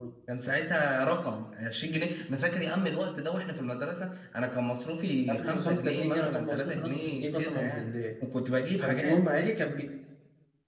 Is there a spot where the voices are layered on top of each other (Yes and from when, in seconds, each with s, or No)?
Yes, from 5.3 s